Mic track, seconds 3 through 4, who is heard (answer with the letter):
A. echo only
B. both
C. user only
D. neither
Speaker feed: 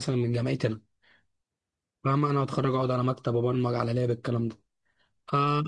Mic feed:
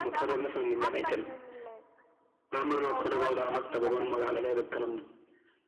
B